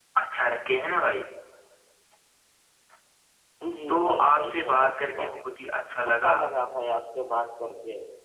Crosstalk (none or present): present